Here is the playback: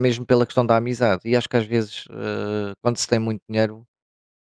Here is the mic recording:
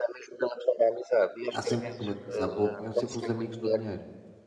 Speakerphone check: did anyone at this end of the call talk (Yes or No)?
Yes